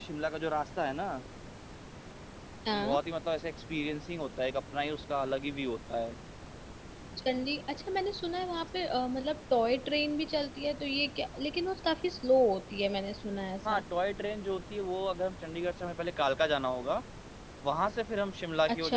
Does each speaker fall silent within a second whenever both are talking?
Yes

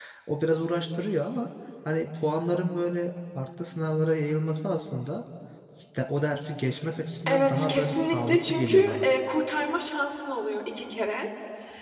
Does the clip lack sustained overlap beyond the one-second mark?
No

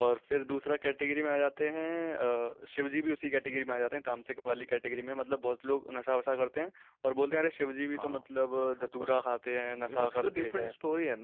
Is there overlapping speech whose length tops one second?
Yes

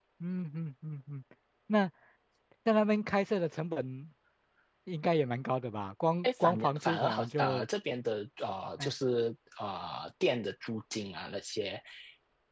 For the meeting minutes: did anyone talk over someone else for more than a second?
Yes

